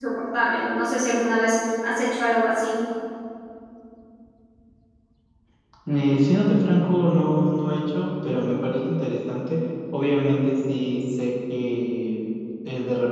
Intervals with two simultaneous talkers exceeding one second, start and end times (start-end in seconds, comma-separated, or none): none